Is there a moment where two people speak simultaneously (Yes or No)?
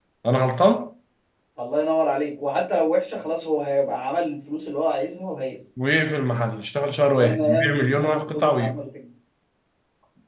Yes